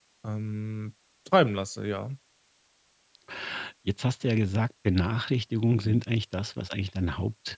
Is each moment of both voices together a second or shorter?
Yes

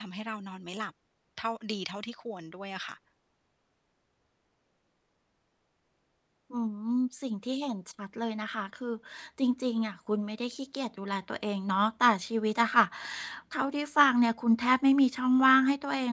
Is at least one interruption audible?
No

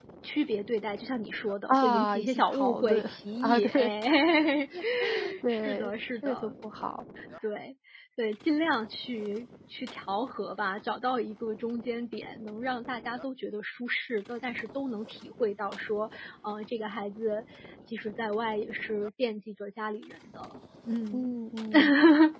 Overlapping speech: Yes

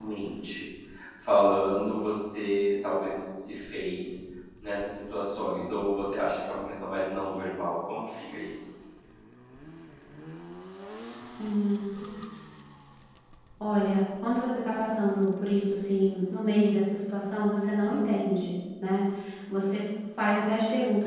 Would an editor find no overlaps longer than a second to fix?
Yes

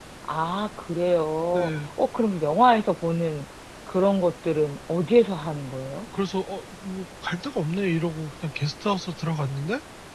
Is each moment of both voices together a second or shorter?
Yes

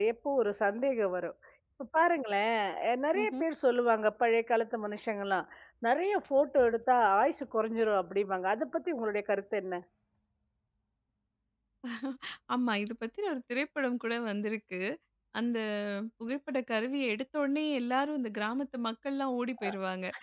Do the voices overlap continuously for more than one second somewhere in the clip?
No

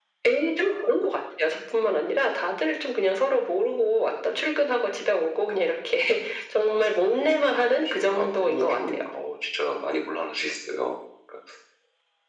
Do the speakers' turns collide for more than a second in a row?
Yes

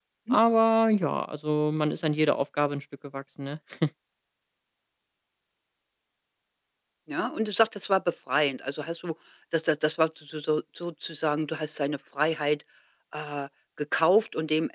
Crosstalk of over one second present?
No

